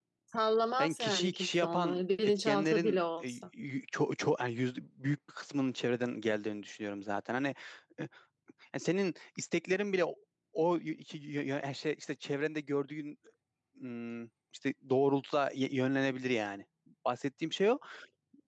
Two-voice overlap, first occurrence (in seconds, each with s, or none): 0.8 s